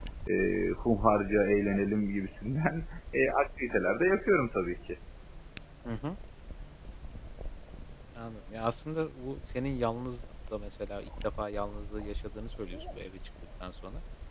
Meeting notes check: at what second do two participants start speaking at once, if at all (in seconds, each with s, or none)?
none